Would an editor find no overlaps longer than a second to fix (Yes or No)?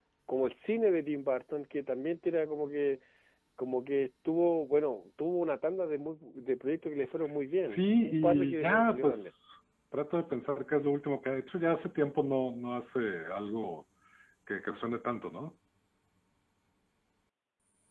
No